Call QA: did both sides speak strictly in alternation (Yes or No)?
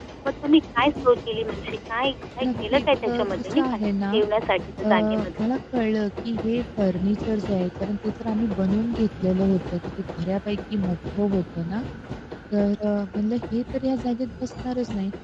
No